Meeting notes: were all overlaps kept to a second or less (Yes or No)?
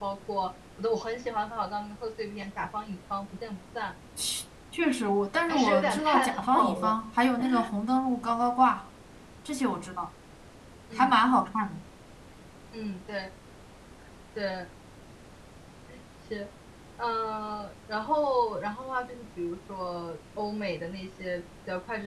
No